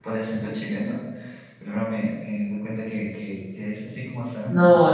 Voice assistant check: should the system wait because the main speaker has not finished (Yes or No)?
No